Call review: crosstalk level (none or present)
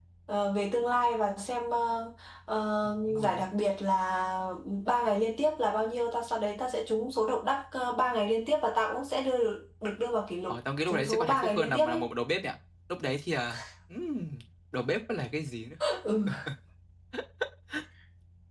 present